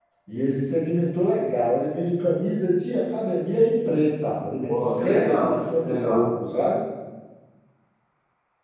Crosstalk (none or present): present